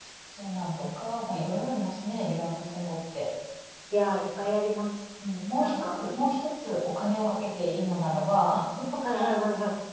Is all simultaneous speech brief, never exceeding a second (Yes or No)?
Yes